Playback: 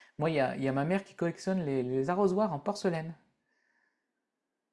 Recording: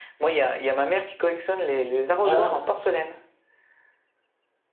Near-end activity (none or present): present